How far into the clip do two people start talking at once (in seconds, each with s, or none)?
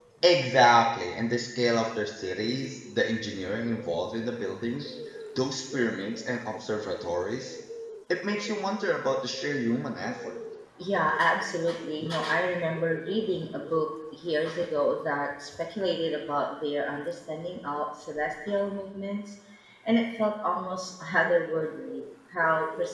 none